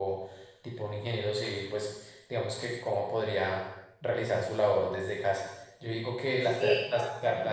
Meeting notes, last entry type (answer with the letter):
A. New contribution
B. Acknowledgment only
B